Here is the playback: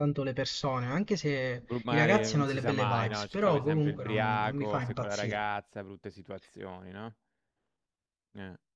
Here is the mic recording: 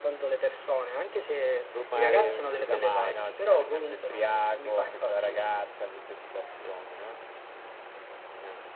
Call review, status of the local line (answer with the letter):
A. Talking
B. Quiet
B